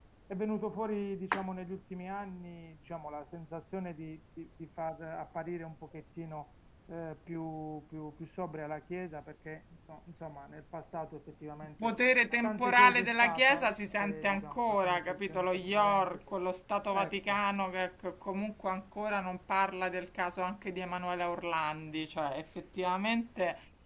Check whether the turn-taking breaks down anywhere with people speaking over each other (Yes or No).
Yes